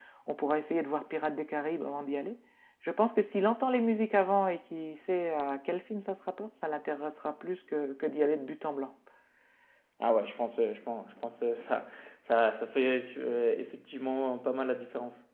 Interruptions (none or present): none